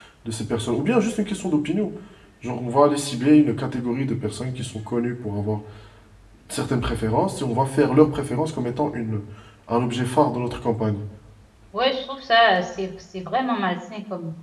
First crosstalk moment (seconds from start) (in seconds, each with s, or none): none